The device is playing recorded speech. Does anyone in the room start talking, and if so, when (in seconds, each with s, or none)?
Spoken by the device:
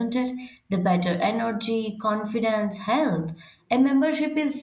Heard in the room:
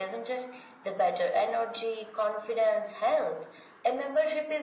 none